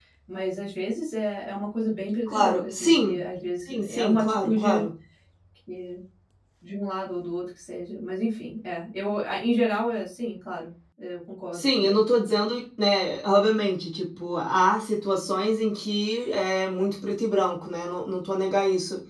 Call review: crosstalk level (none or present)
present